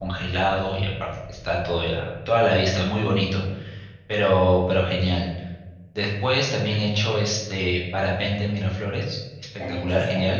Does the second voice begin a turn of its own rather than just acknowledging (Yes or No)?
No